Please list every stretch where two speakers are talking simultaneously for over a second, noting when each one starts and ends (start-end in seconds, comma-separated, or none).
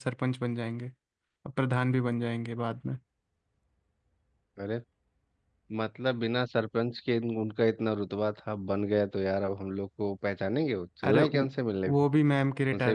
none